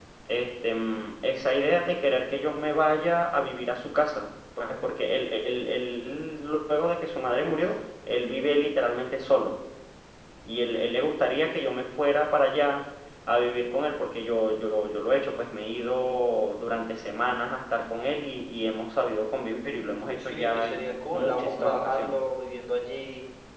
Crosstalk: present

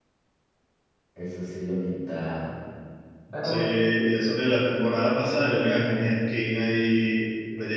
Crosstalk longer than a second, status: none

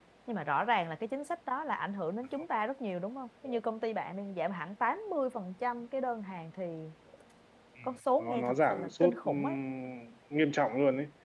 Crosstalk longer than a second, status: present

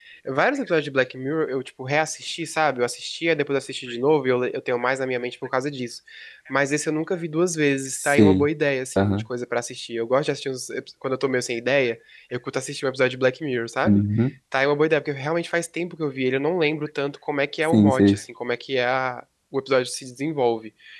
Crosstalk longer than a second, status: none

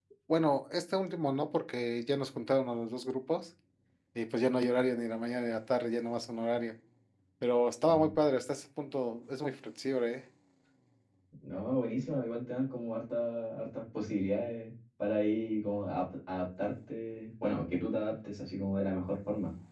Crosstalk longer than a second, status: none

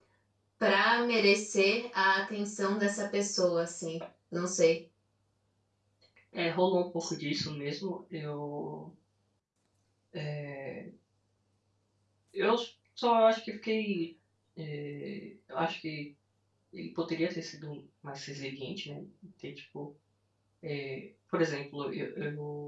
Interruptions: none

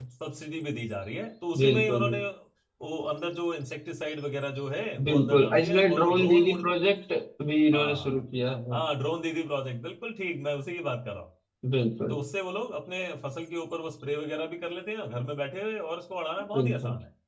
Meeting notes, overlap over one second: present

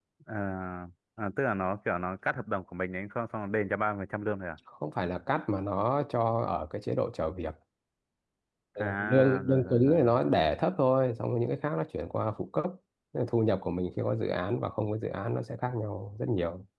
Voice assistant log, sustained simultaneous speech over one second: present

